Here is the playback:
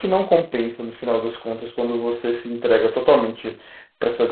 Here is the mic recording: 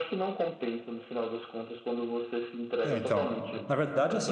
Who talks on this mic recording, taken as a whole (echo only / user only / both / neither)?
both